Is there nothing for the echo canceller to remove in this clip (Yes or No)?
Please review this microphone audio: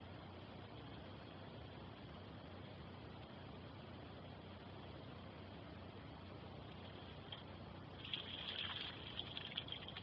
Yes